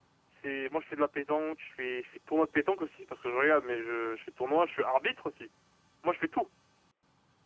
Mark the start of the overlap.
none

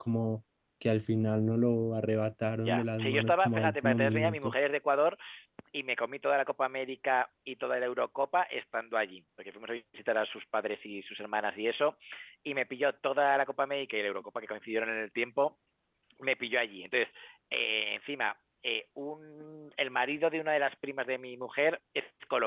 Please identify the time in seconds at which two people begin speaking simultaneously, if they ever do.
3 s

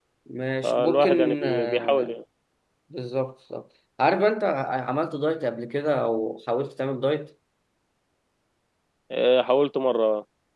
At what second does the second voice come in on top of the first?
1 s

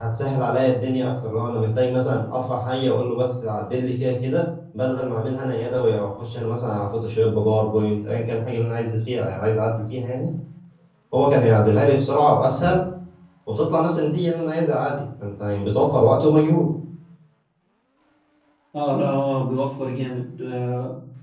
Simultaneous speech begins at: none

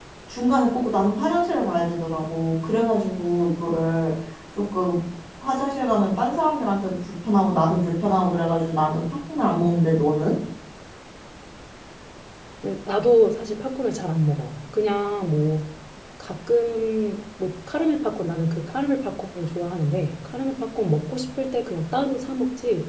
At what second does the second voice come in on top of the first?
none

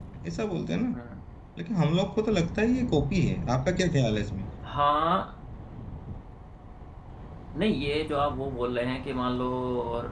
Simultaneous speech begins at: none

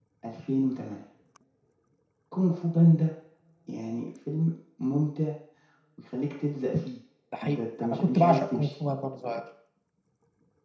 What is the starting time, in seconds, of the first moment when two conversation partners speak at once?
7 s

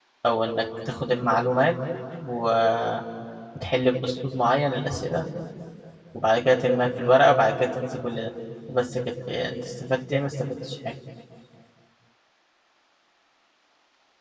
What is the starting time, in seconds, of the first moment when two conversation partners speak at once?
none

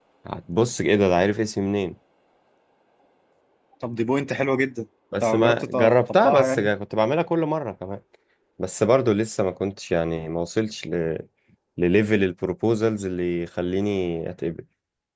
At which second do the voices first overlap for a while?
5 s

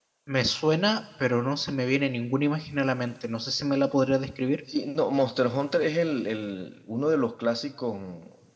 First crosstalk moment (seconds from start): none

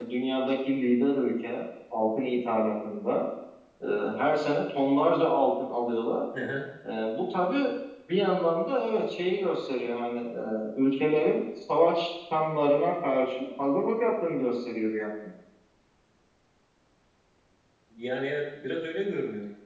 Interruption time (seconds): none

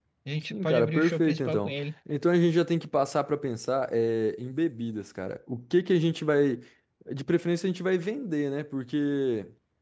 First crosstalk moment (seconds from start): 1 s

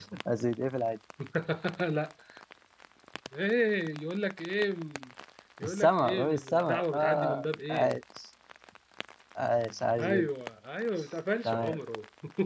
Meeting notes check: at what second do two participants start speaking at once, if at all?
6 s

